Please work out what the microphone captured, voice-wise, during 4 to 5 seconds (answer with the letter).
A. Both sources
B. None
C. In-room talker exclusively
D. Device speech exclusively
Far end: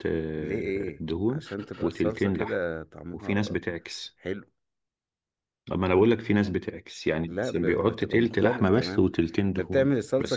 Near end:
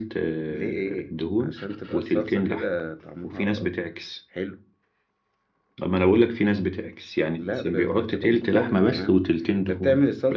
D